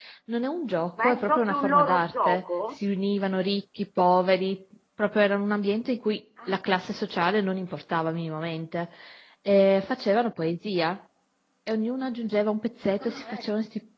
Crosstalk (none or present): present